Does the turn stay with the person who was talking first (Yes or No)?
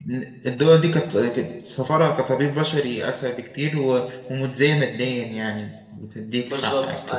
No